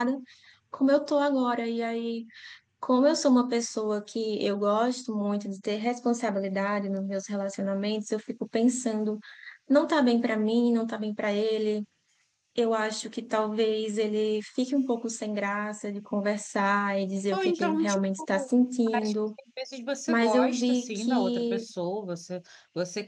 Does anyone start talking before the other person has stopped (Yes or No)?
Yes